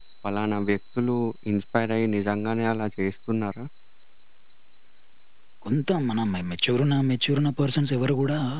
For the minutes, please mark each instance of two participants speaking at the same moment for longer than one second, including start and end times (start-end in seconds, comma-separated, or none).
none